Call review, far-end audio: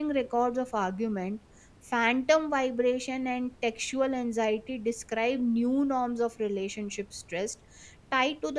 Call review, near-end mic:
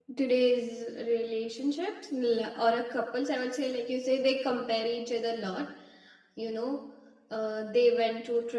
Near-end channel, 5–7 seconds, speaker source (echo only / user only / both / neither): user only